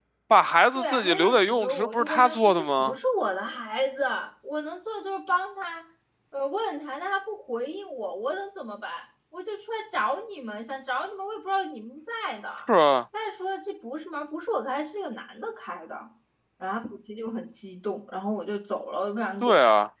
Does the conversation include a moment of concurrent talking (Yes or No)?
Yes